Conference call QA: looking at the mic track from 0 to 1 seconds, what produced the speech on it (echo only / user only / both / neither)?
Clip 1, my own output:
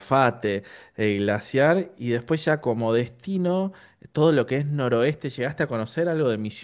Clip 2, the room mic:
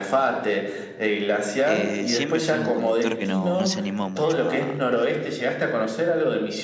echo only